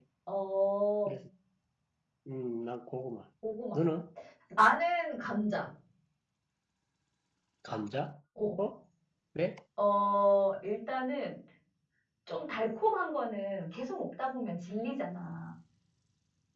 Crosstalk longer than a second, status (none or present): none